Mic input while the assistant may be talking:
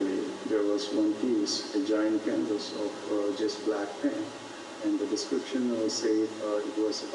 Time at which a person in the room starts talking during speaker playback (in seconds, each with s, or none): none